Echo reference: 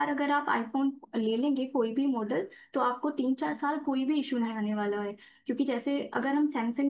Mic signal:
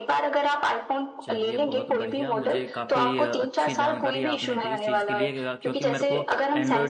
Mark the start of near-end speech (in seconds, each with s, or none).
1.2 s